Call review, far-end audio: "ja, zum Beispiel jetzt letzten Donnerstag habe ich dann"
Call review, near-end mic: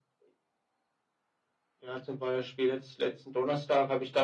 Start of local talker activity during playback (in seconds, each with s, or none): none